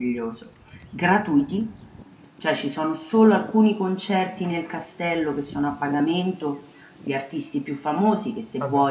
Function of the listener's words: listening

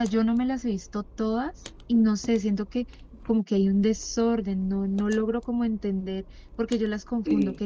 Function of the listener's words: listening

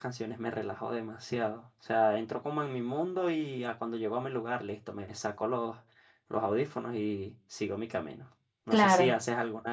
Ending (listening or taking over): listening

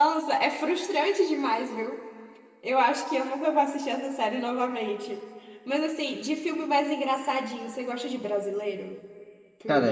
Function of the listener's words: taking over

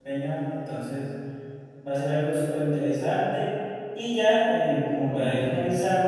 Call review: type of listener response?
listening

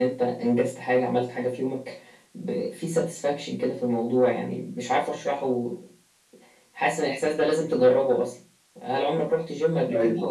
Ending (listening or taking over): listening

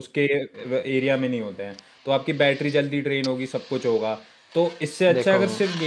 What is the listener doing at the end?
listening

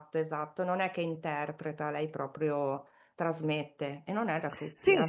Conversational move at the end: taking over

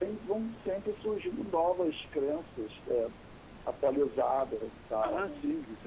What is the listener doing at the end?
taking over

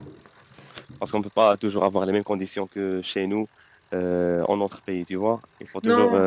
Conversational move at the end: listening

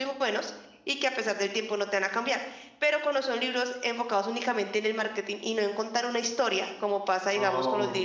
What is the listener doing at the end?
listening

